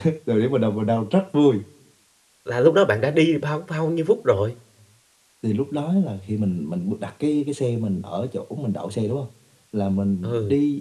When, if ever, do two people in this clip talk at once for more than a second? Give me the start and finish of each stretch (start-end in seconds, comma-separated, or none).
none